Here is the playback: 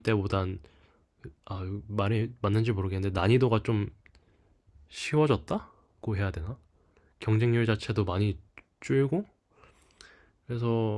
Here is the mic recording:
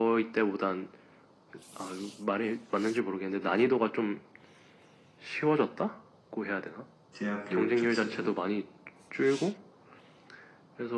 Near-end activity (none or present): present